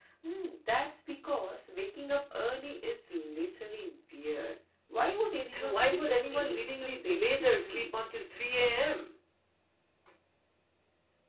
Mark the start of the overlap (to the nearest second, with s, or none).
6 s